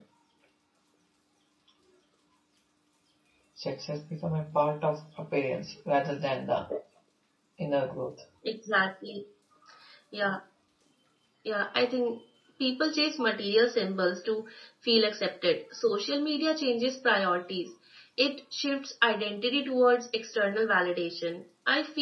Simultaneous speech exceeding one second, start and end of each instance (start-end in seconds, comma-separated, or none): none